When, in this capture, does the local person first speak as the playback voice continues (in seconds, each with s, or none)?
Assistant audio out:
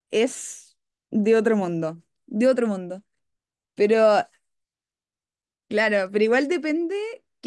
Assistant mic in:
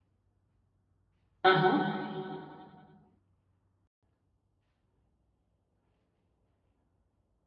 1.4 s